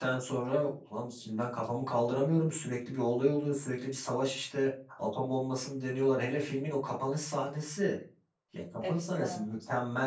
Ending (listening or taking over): listening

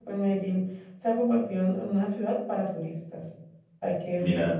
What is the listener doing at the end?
listening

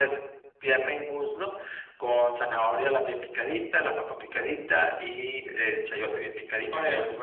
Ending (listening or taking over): listening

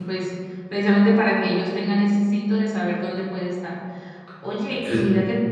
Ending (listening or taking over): listening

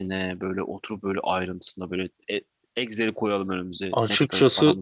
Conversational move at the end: taking over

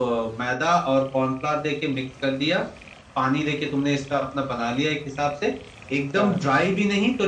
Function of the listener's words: listening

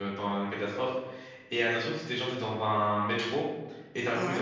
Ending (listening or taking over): listening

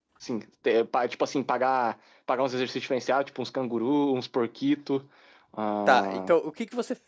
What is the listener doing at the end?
taking over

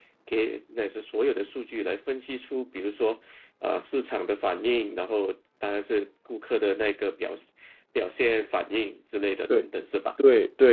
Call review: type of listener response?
taking over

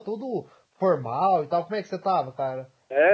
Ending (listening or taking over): taking over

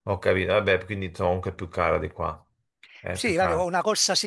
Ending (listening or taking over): taking over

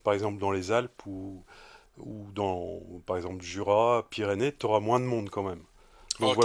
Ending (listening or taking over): taking over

